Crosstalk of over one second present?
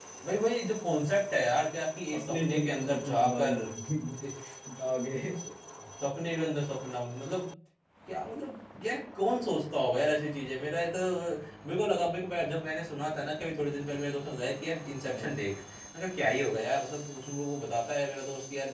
Yes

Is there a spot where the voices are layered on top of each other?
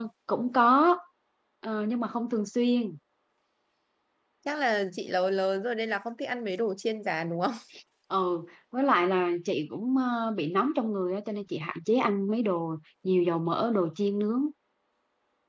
No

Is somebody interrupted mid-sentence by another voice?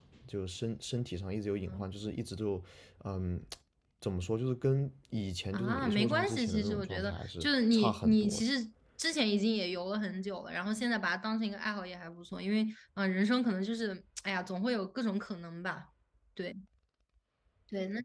Yes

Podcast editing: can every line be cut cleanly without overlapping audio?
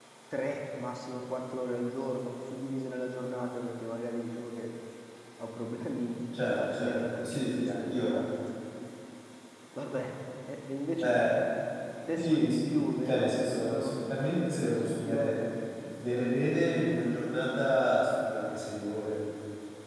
No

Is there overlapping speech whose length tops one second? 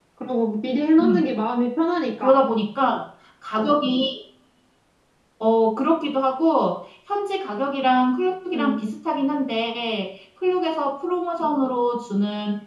No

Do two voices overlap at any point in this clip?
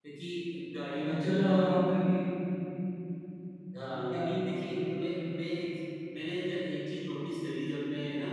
Yes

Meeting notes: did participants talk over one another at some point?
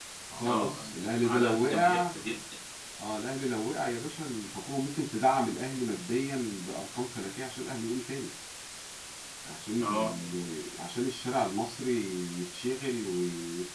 Yes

